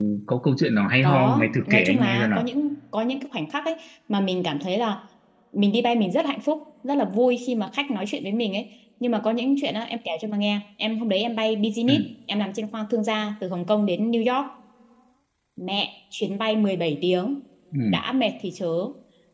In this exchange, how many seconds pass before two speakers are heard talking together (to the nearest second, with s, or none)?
1 s